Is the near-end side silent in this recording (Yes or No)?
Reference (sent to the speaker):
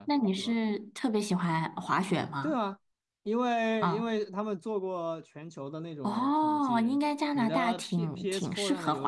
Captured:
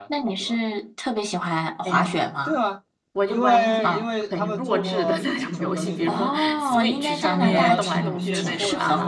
No